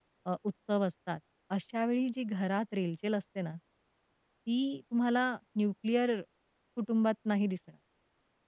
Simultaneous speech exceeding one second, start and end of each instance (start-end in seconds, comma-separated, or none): none